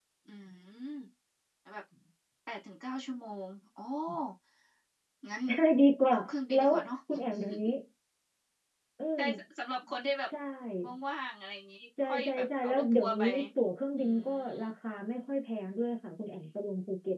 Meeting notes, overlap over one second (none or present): present